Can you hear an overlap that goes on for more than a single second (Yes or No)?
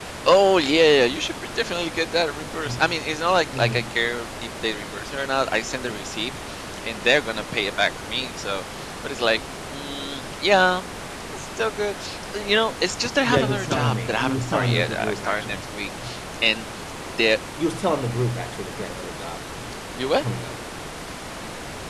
Yes